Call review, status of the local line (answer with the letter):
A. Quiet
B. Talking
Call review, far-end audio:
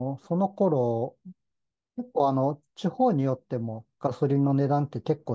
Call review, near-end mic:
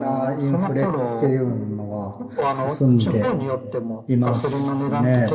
B